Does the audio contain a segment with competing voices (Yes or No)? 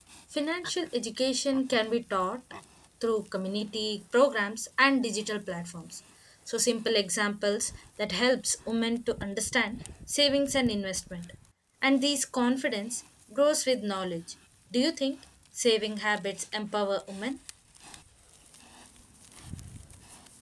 No